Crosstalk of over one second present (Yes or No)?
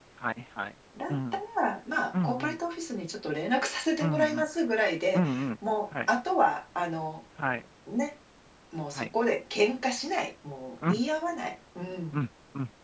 No